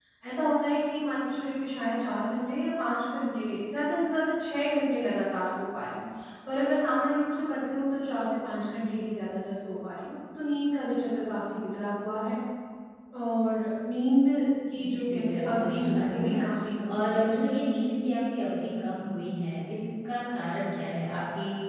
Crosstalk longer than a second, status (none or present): present